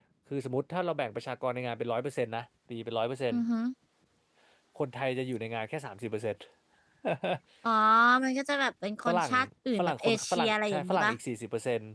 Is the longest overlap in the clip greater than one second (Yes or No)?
Yes